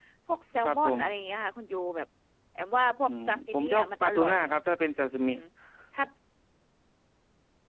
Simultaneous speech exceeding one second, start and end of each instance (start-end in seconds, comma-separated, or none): 3.1-4.3